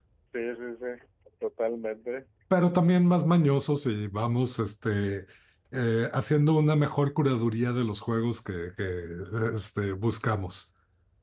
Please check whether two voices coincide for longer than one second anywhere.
No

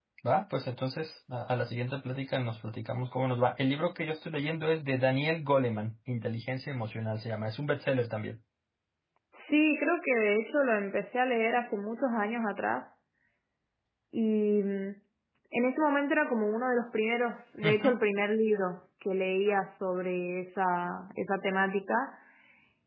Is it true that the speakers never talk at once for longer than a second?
Yes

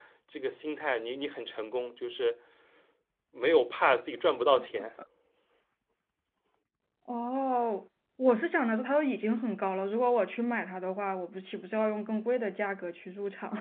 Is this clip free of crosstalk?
Yes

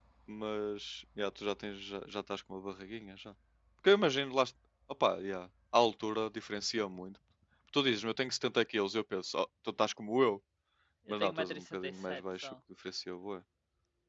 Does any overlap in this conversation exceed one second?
Yes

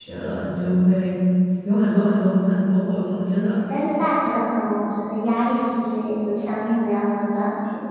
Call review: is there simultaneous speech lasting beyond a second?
No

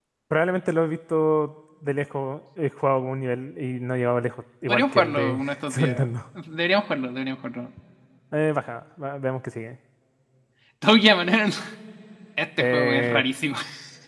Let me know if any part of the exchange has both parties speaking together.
Yes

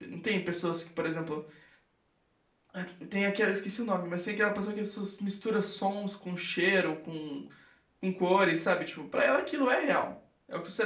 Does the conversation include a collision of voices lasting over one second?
No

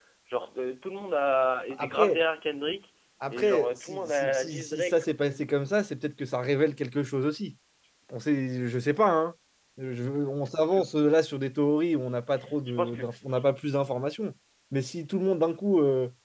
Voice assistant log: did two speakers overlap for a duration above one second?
Yes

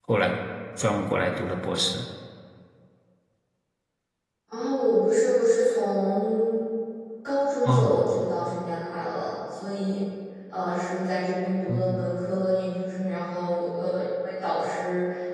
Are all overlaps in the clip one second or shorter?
Yes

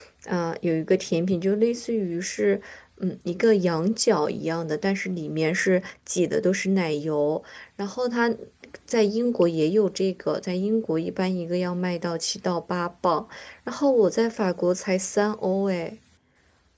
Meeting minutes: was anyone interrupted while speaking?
No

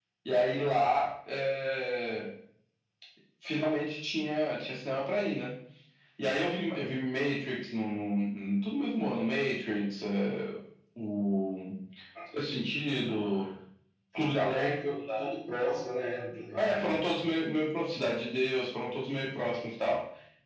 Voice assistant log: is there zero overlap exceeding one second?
Yes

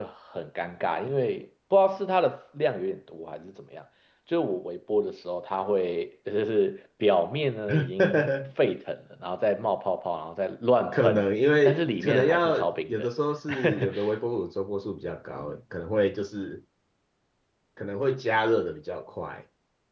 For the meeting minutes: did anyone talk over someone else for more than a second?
Yes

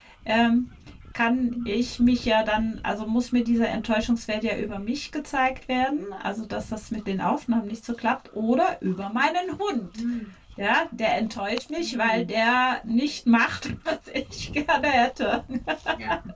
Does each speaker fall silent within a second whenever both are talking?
Yes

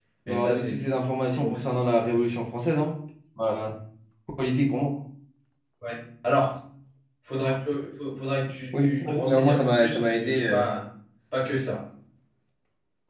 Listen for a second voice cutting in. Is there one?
Yes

